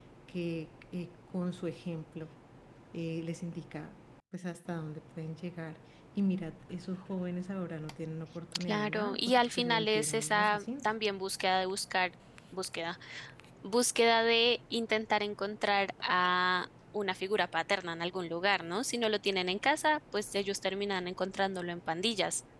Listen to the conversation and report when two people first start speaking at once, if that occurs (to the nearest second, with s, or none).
9 s